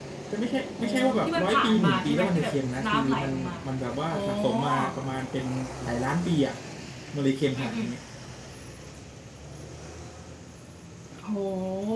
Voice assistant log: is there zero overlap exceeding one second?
No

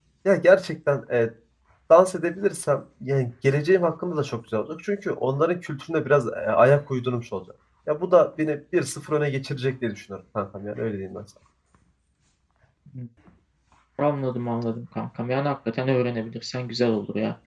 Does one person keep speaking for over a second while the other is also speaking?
No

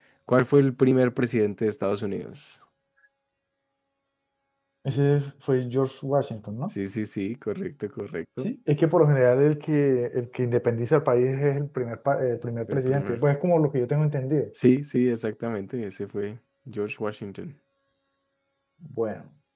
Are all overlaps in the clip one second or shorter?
Yes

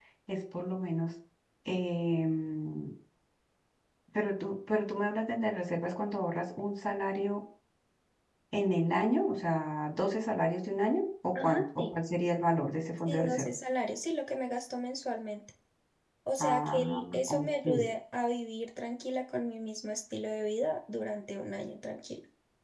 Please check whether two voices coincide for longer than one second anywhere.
Yes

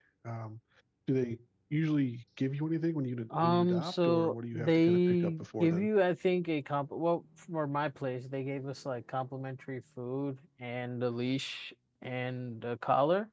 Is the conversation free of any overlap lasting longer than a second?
No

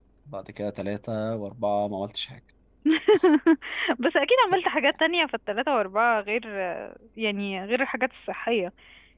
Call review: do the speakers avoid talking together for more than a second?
Yes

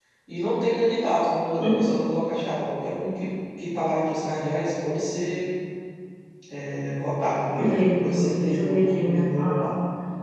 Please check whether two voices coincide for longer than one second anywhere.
Yes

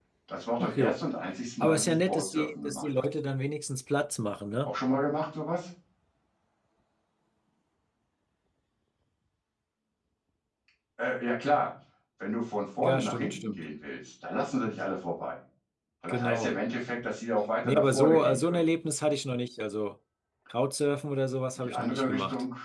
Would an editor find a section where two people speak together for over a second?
Yes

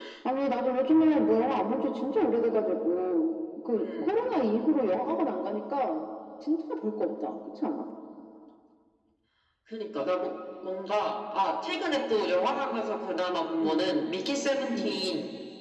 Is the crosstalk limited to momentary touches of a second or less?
Yes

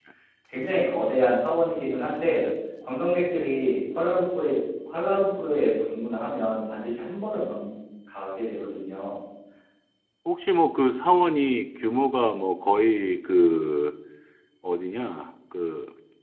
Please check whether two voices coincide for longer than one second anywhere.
No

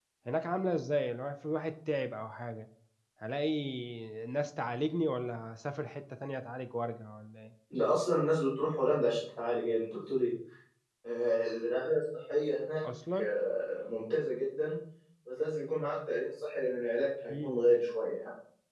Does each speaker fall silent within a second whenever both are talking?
Yes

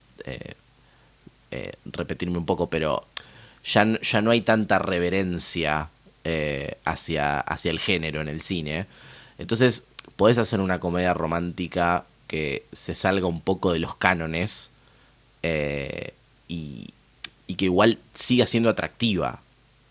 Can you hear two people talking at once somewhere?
No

